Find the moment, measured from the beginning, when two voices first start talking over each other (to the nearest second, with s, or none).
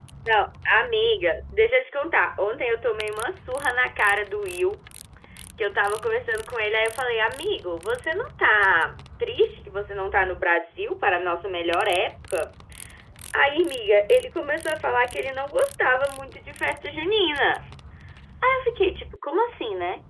none